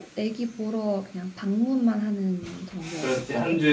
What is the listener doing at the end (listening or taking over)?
taking over